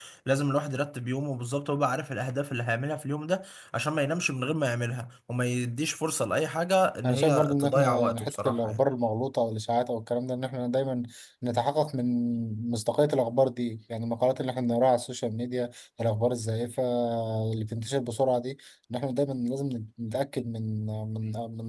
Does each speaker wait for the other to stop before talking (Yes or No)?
No